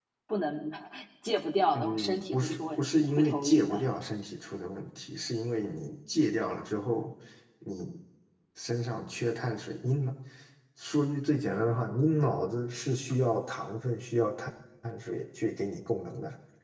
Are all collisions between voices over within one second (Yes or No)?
No